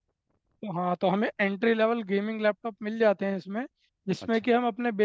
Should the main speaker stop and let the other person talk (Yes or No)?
No